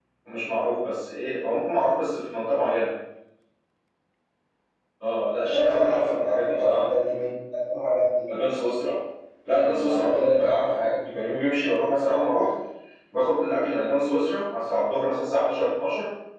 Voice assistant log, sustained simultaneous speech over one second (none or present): present